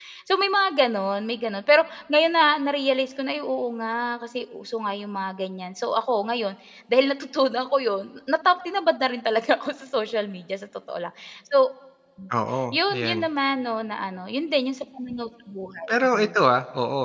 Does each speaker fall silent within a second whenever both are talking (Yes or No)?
Yes